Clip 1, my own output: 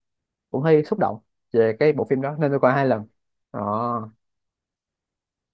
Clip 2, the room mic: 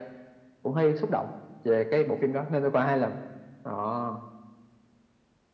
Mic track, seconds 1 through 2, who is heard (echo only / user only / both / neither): echo only